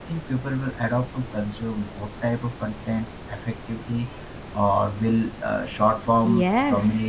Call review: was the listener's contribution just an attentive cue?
No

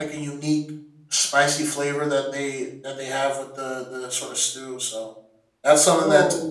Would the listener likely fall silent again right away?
Yes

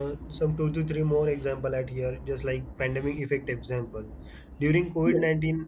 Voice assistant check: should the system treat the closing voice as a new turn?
No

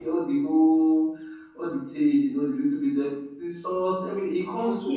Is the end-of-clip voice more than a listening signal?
Yes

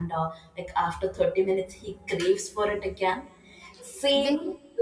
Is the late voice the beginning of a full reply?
Yes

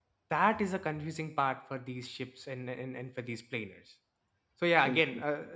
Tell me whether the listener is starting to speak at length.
No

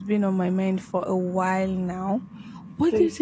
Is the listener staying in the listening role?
Yes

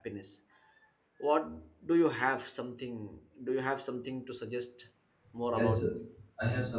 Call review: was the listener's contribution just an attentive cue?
No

